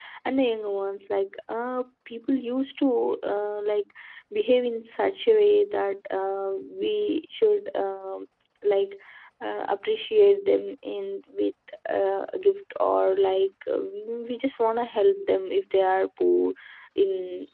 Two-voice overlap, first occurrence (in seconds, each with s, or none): none